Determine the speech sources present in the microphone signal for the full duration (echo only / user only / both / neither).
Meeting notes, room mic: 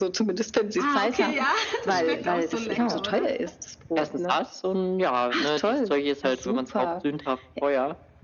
both